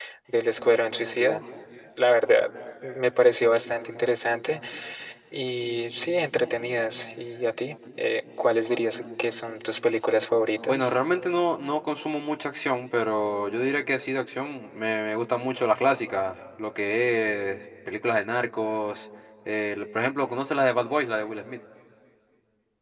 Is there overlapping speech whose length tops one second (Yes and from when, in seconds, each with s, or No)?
No